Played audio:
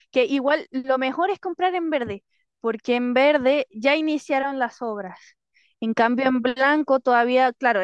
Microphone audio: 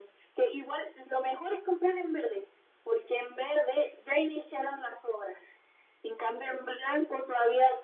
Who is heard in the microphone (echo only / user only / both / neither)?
echo only